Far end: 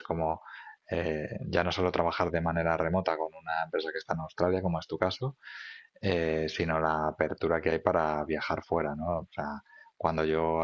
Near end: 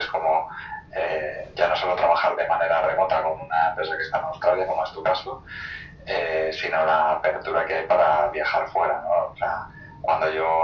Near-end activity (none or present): none